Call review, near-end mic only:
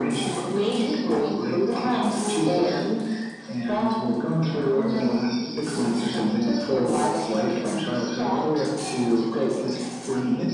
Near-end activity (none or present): none